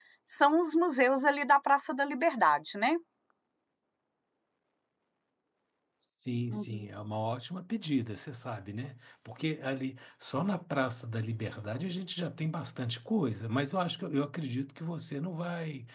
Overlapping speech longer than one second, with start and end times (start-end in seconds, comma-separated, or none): none